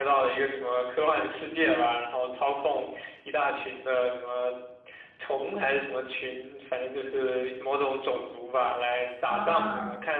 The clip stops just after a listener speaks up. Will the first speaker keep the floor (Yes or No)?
Yes